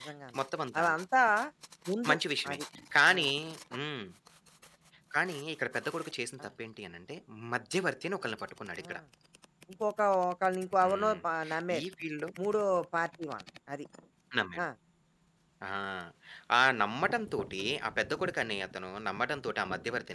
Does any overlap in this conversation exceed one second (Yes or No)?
No